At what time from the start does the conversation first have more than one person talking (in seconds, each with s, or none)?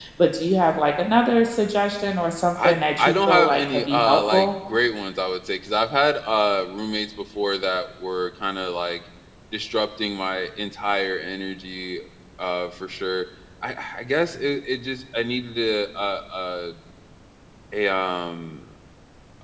2.5 s